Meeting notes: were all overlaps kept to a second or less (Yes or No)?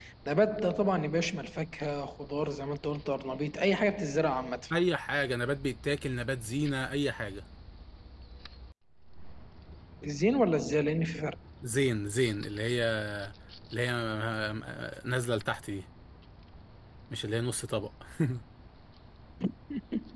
Yes